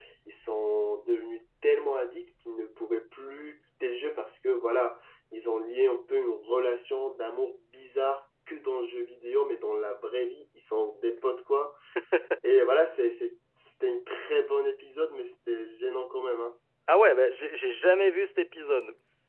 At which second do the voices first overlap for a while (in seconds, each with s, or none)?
none